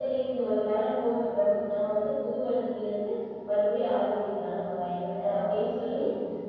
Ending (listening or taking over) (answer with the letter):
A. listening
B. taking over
A